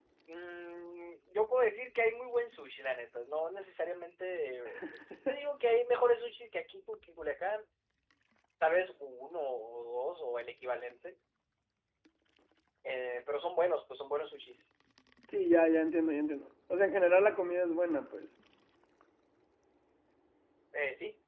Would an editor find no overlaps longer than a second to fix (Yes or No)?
Yes